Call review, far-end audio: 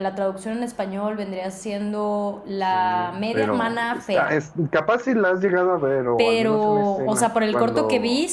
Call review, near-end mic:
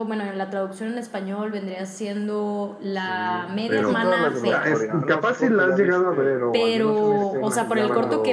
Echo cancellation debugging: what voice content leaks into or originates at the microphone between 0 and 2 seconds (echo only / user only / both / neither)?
echo only